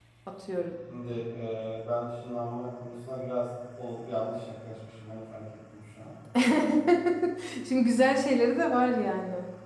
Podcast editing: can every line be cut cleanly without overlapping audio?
Yes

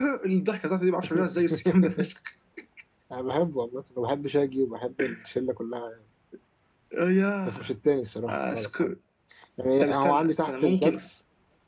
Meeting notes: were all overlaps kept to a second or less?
No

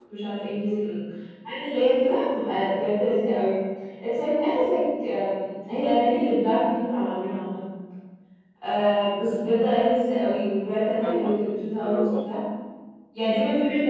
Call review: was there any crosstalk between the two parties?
Yes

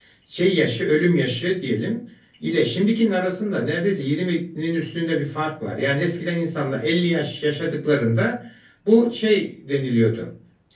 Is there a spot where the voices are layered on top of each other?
No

